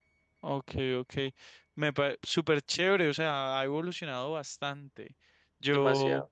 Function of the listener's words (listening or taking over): listening